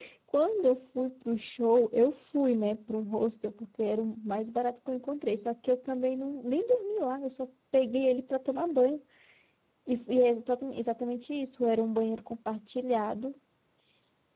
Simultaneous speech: No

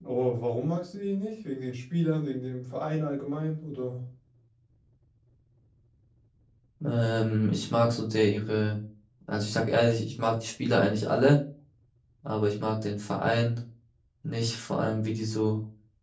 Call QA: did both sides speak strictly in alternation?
Yes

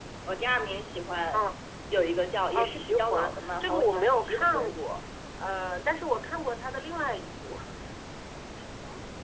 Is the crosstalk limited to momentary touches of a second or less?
No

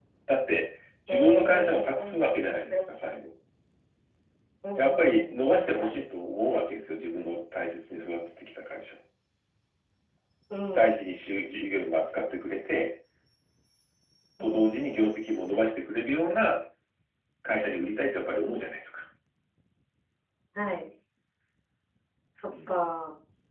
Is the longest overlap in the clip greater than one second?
Yes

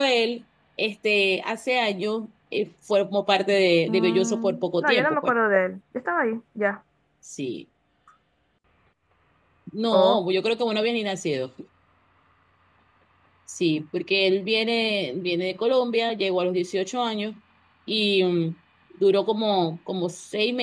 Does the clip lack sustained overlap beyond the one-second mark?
No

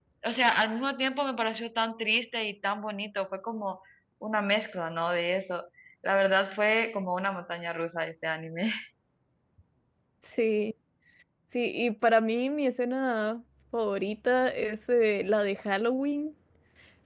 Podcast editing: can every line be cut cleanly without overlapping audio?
Yes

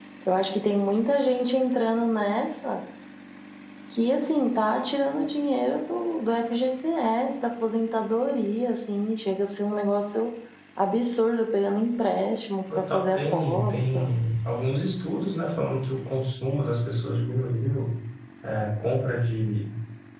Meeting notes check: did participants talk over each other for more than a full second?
Yes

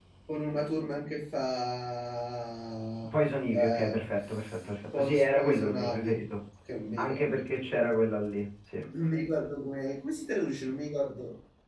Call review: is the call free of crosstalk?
No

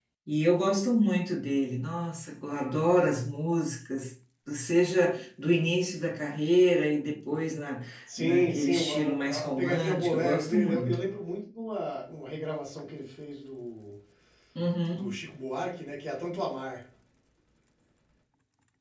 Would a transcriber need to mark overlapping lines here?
Yes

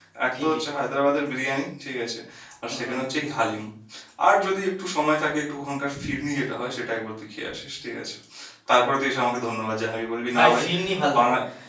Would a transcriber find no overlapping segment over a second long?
Yes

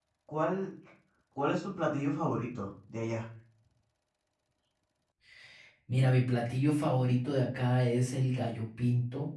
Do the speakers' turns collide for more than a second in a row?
No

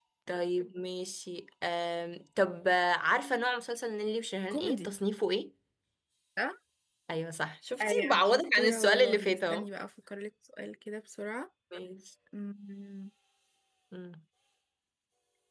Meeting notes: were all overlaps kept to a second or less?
No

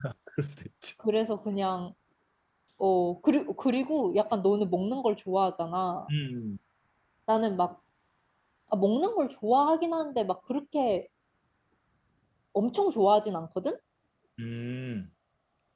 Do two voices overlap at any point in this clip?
No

